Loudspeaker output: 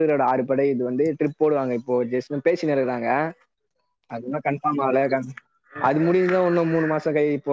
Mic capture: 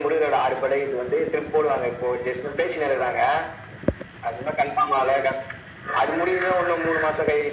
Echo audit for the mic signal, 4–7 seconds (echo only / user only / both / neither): echo only